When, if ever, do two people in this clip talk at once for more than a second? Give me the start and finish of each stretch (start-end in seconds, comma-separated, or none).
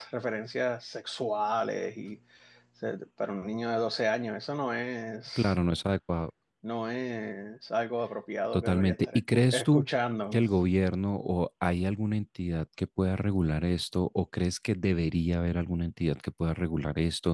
8.5-9.8